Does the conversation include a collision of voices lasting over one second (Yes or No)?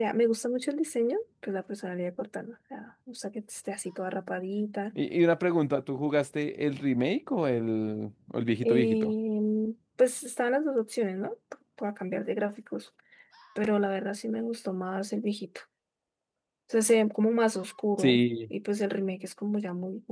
No